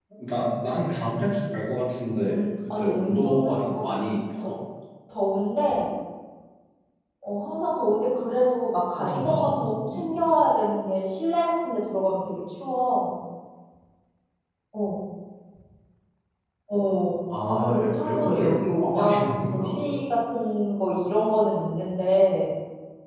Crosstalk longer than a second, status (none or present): present